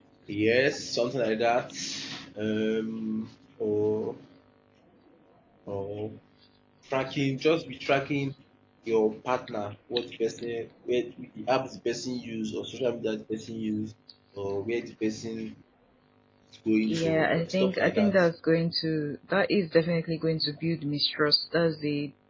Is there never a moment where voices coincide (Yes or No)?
No